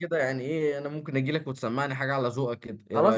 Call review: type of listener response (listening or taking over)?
taking over